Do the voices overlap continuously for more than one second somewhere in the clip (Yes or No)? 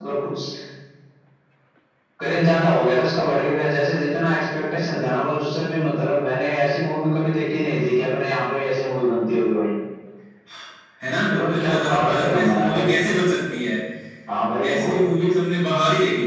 Yes